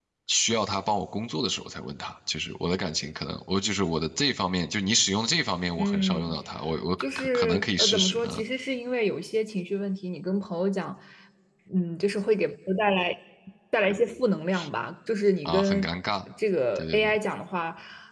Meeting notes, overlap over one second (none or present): present